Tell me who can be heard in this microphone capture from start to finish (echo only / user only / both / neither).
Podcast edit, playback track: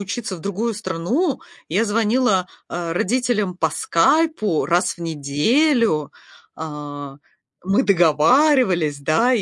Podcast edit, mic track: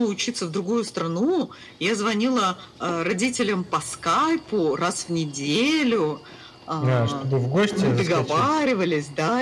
both